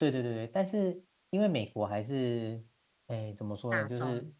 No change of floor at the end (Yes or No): Yes